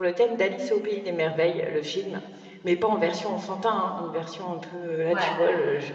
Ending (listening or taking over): listening